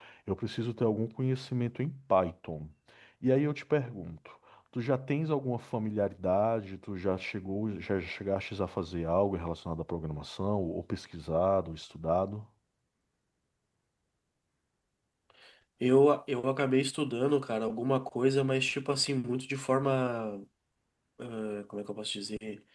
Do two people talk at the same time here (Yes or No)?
No